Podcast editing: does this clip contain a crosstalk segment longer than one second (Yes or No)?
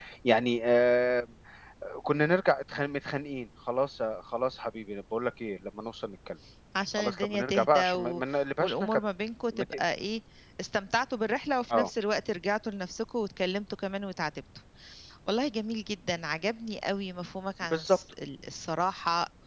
Yes